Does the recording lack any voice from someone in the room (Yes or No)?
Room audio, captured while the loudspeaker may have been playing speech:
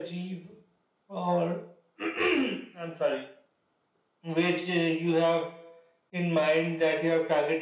Yes